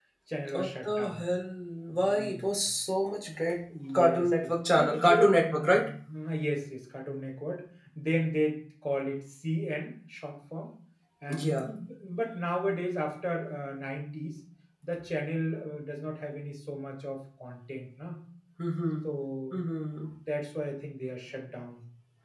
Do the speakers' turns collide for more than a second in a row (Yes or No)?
Yes